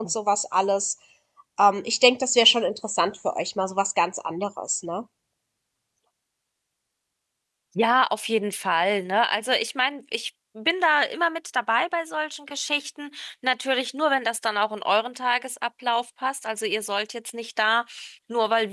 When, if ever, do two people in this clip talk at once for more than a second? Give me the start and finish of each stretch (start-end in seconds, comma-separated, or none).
none